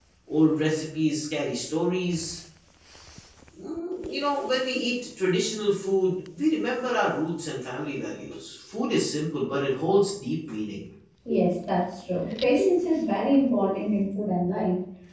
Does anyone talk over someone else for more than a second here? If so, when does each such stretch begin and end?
none

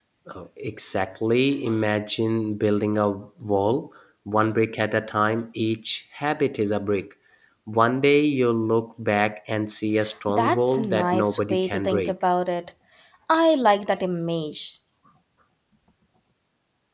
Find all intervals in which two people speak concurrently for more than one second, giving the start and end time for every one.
10.3-12.1

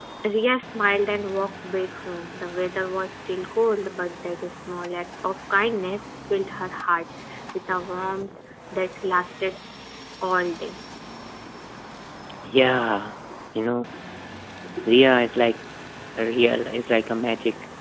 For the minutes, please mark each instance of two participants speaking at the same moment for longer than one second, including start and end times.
none

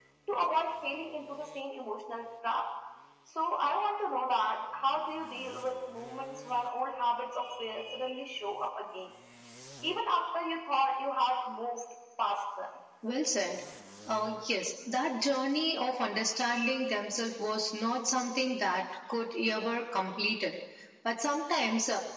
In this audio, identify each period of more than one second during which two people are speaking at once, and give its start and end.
none

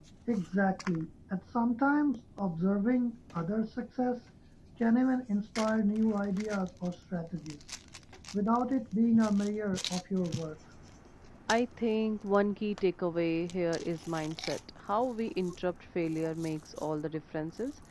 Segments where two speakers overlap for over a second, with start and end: none

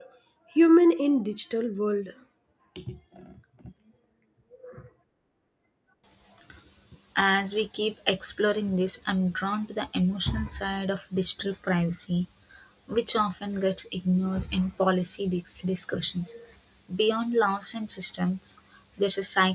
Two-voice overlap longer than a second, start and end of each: none

